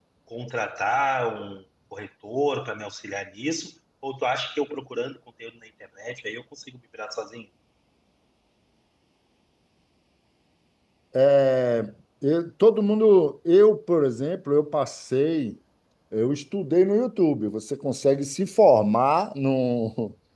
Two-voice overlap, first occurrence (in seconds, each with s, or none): none